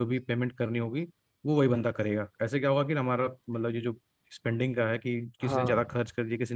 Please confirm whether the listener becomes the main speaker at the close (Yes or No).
No